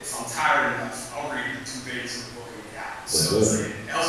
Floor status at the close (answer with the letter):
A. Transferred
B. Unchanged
B